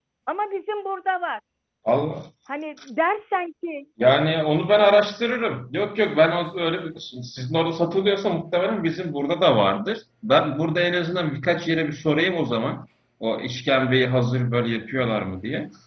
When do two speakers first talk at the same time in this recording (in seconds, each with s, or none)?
none